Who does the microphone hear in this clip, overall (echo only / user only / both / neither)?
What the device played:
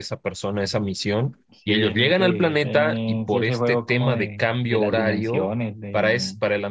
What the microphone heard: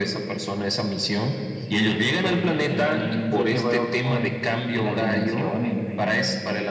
echo only